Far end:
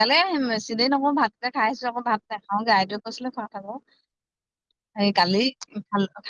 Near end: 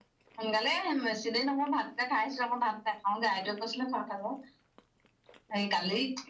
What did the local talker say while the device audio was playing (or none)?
none